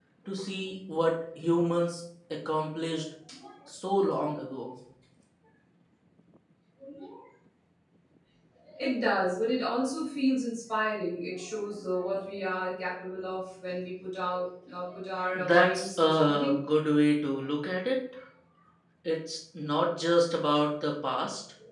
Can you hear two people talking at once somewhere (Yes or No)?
Yes